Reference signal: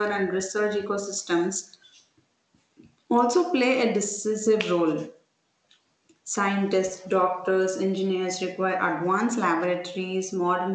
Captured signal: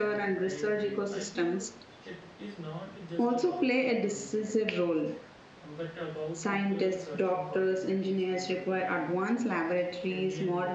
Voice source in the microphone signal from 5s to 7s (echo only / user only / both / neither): both